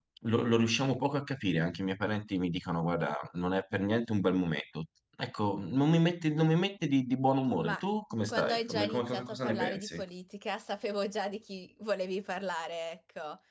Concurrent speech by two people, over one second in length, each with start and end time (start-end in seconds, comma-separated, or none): 8.3-10.0